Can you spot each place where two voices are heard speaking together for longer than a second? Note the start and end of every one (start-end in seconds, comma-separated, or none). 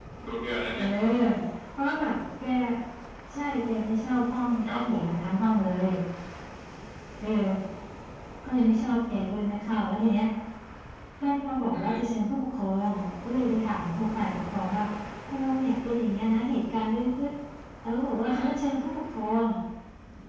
none